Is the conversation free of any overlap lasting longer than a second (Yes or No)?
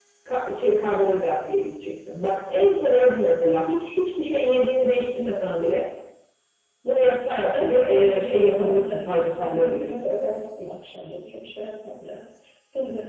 No